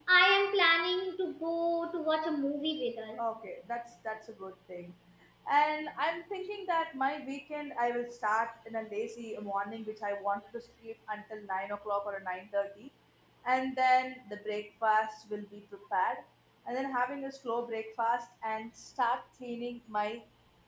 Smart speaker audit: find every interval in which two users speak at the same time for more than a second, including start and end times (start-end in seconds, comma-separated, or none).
none